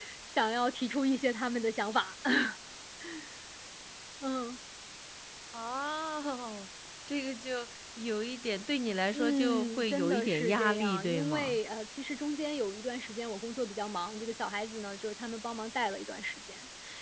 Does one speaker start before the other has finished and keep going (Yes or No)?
Yes